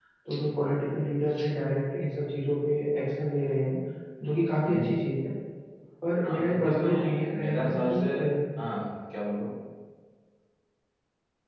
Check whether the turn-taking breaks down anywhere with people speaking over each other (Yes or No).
Yes